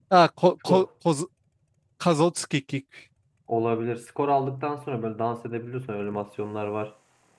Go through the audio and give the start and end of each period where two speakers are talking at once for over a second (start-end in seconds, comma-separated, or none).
none